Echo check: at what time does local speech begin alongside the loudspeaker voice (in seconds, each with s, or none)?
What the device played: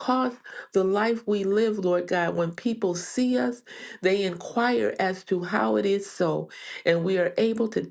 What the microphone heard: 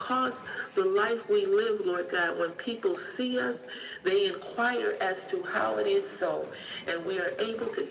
none